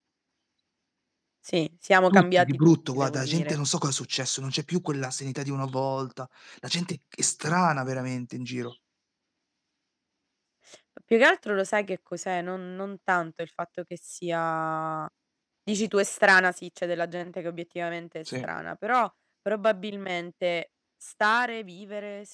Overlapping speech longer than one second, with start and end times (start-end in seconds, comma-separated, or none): 2.1-3.6